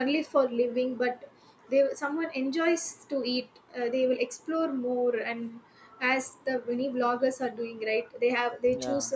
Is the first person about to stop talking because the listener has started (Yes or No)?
No